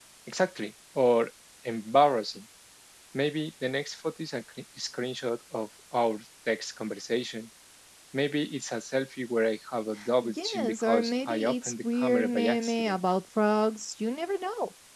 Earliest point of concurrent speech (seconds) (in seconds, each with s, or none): 10.0 s